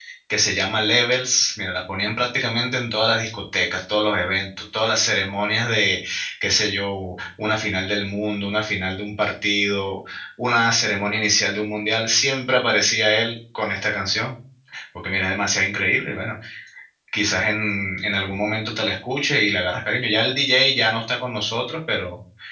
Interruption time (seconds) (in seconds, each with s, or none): none